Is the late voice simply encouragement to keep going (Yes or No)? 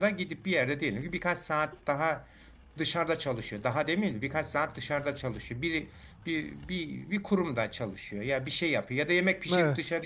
Yes